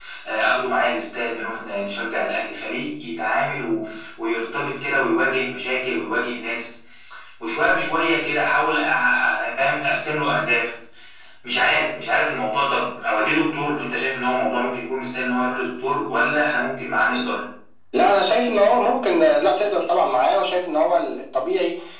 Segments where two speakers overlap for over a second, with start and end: none

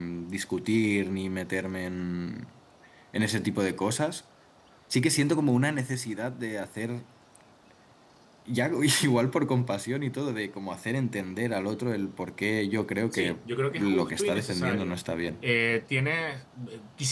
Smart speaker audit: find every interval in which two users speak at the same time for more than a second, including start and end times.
13.8-15.0

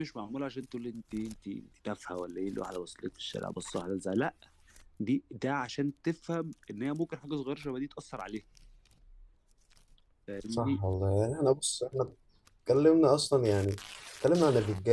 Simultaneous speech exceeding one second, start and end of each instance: none

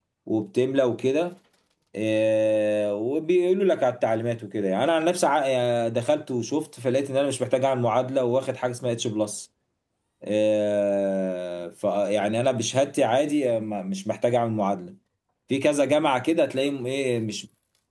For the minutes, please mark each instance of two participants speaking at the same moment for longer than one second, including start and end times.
none

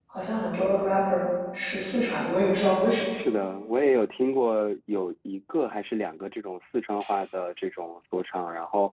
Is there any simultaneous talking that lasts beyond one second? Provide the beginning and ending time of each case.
none

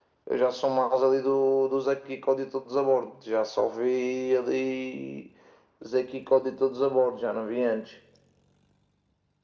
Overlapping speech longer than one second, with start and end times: none

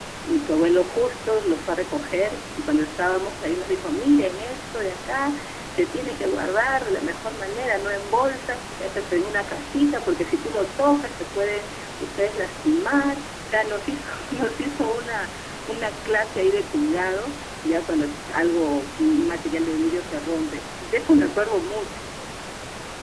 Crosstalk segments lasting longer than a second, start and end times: none

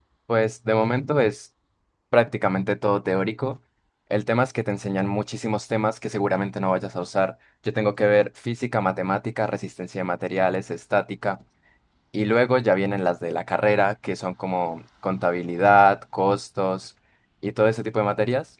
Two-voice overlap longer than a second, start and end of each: none

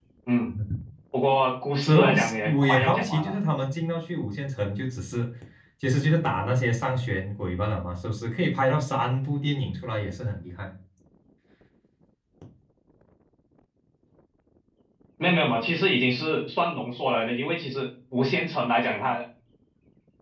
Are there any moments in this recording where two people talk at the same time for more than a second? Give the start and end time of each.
1.8-3.3

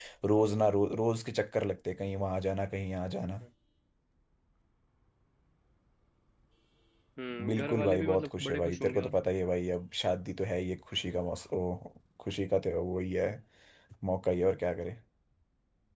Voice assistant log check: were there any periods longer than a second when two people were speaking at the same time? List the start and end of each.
7.4-9.1

